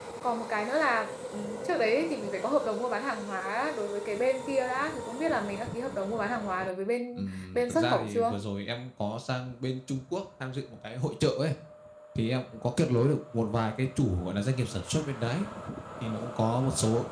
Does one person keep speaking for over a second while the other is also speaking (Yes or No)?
Yes